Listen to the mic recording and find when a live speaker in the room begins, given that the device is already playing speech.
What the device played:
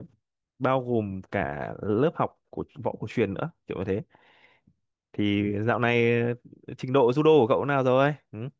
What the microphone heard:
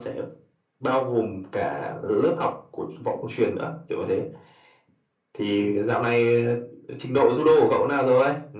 none

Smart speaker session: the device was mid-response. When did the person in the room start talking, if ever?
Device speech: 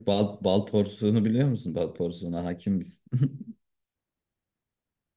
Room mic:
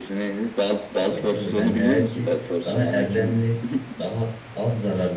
1.0 s

